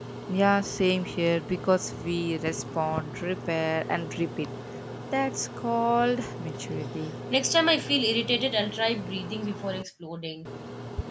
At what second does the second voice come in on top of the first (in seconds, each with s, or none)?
none